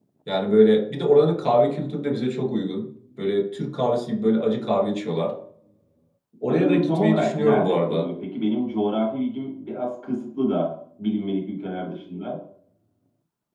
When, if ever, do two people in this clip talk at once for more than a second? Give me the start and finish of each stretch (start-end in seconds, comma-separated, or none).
6.5-8.1